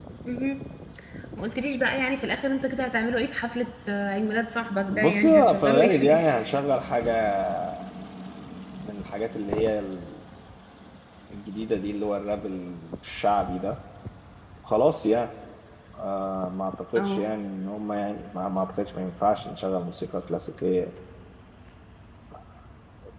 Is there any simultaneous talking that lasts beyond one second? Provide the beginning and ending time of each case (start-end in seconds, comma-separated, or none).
4.9-6.5